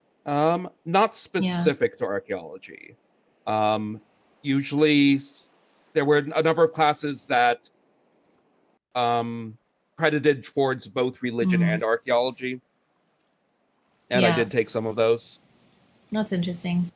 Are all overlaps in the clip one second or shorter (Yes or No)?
Yes